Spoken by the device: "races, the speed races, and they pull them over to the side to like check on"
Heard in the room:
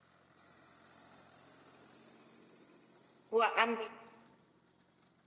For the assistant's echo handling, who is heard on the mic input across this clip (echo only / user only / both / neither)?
user only